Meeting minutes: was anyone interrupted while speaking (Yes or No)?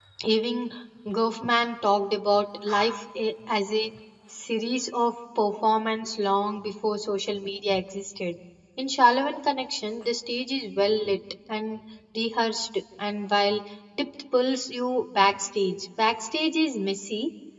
No